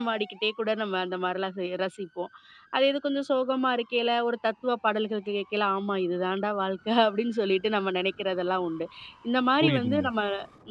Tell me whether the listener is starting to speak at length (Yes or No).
No